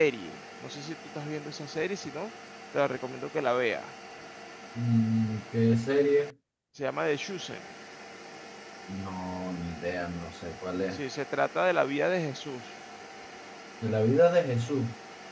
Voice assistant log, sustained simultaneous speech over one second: none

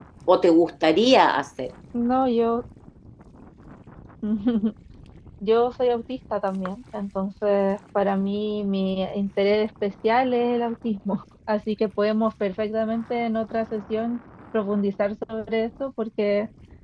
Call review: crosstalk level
none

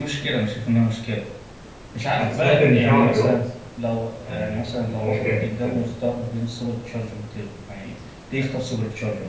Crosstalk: present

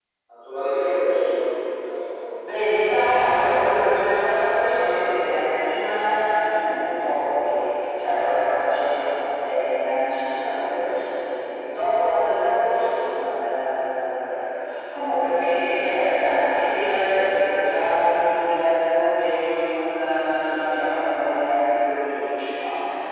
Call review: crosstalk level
none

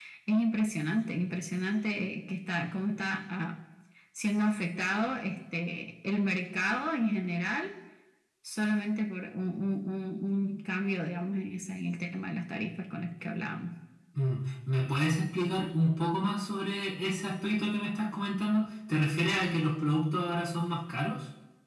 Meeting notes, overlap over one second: none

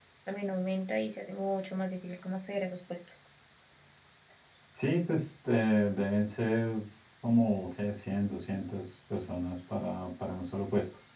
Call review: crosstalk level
none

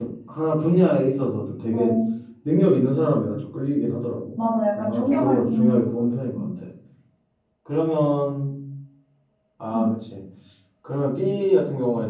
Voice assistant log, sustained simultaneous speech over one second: present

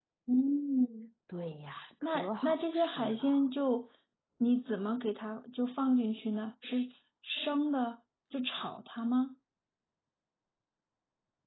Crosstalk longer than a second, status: present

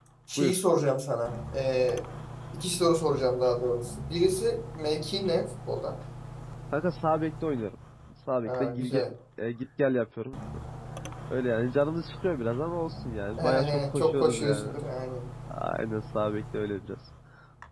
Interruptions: present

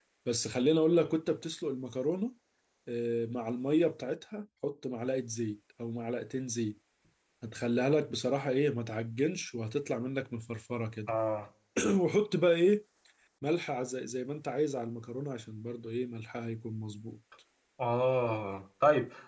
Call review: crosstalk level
none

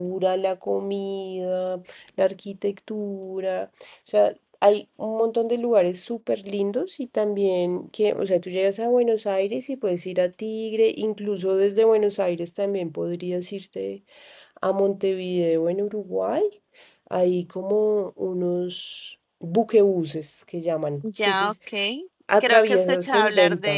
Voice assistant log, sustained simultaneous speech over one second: present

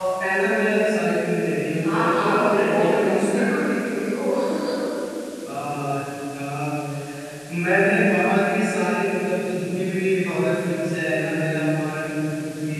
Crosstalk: present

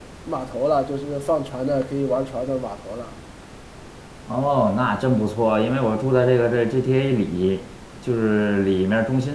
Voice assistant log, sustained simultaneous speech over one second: none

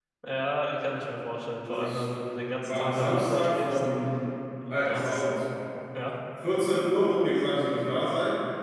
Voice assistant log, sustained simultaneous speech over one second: present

